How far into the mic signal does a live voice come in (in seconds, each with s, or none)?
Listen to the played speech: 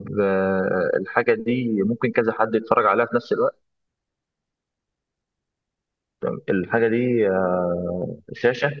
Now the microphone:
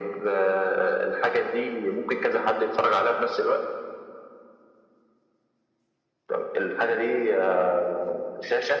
none